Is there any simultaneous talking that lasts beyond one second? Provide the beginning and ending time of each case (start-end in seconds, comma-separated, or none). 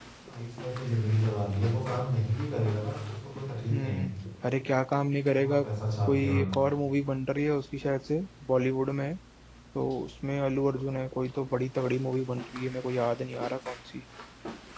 none